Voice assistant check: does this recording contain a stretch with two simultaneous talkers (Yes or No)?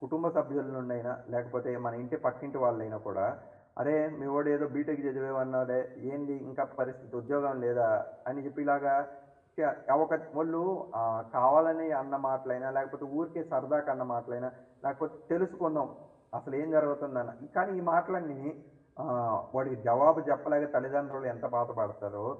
No